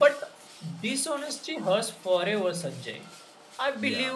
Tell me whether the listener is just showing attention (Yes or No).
Yes